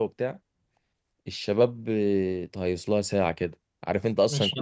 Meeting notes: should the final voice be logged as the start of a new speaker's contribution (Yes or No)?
No